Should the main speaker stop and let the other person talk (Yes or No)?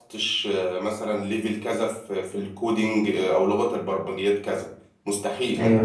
No